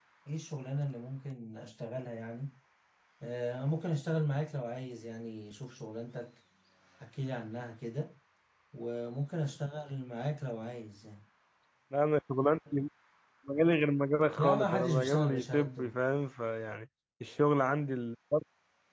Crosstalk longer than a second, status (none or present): present